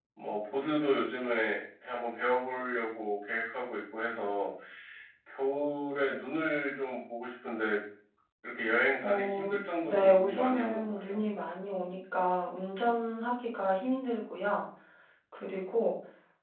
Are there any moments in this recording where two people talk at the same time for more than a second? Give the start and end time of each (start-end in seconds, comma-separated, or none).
9.9-11.2